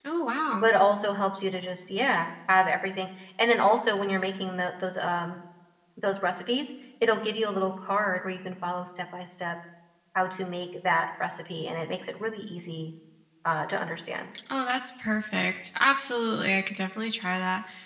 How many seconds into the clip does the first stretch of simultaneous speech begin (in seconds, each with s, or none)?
none